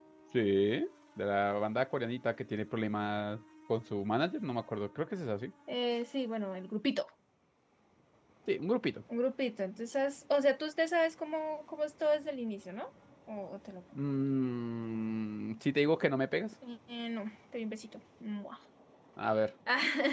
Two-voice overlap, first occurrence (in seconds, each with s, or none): none